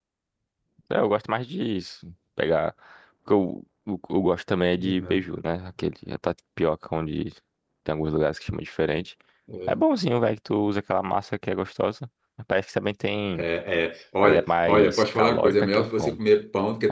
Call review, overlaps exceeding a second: present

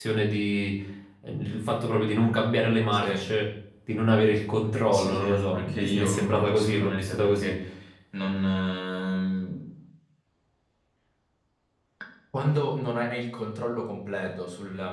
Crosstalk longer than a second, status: present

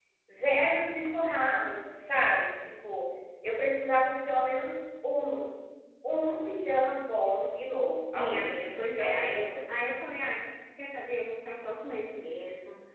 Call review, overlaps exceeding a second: present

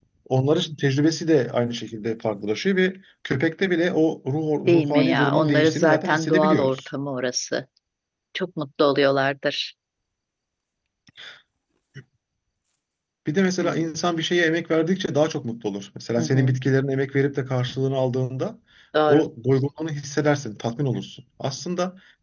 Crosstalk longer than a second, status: present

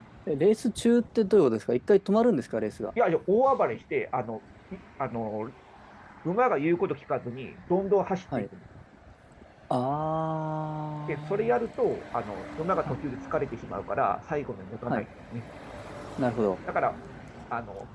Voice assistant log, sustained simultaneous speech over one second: none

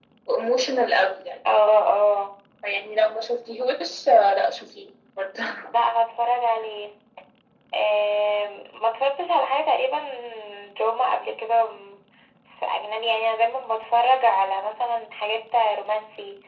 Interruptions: none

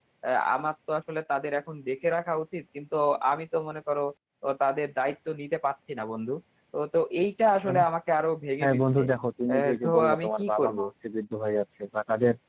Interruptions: present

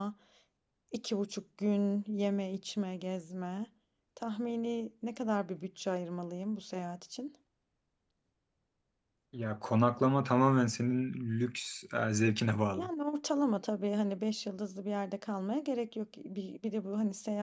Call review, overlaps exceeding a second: none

